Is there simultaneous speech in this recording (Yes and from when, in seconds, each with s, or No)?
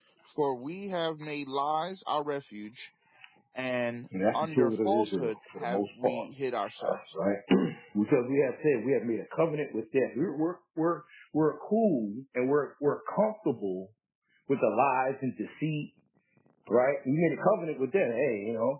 Yes, from 4.3 s